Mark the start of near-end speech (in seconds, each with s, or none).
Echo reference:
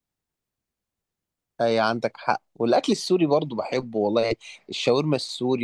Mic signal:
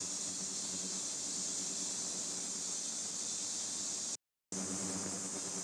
none